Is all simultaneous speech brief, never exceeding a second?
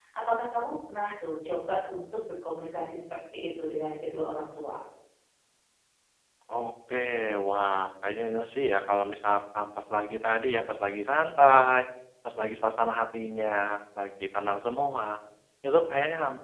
Yes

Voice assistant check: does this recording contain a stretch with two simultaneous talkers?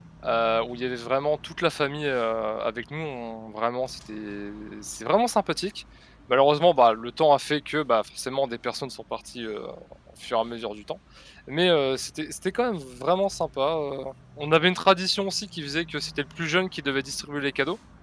No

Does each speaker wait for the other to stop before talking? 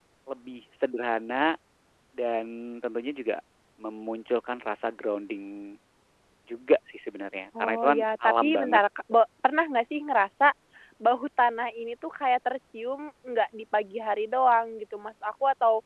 No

